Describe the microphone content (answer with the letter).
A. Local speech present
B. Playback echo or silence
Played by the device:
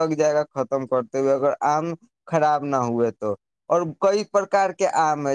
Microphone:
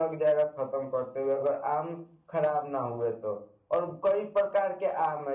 B